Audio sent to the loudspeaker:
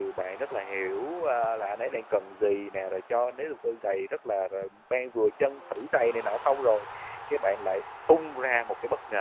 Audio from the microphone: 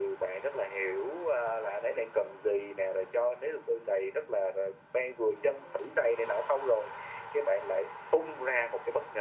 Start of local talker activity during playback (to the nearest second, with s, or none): none